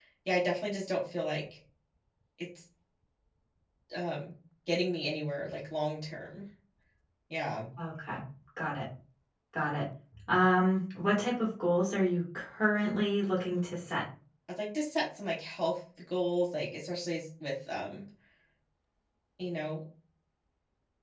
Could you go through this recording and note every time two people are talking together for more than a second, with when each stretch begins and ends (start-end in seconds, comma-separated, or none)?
none